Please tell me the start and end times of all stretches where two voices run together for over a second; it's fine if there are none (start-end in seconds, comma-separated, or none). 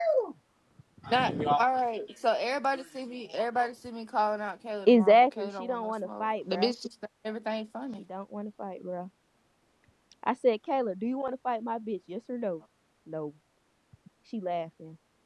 4.9-6.7